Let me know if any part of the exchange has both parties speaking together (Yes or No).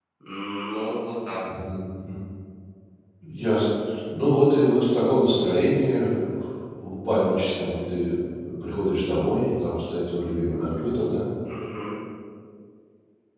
No